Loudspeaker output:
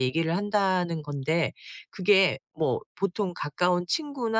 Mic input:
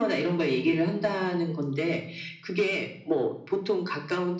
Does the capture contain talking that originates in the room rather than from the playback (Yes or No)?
No